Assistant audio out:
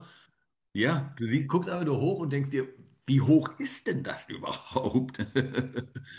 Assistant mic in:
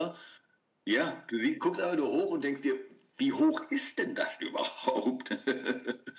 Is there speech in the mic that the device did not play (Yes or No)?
No